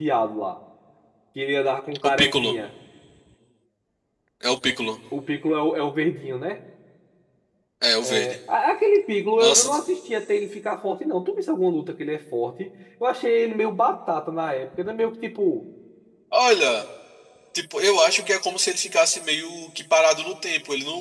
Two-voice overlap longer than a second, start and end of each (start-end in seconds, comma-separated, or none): none